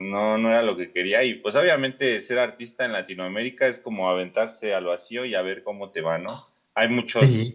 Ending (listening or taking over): listening